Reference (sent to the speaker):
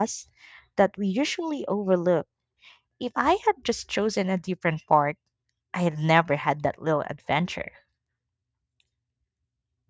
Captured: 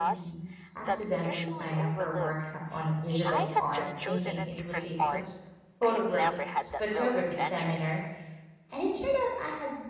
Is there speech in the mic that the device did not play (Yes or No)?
Yes